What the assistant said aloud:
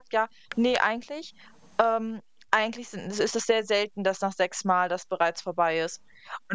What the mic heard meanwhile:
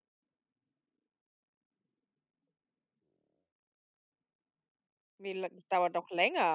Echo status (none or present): none